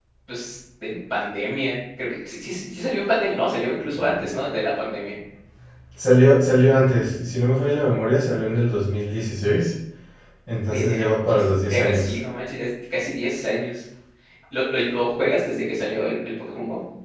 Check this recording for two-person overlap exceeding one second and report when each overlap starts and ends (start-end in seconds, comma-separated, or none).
10.7-12.2